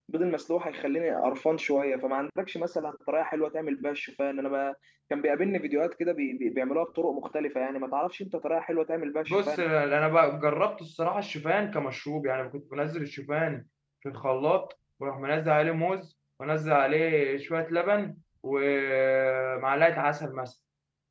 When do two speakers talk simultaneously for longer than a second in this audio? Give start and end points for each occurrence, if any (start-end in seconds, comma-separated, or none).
none